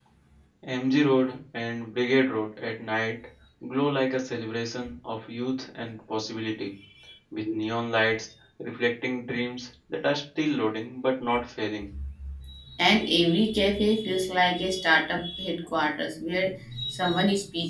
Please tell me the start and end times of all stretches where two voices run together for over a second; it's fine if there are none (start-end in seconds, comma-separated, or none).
none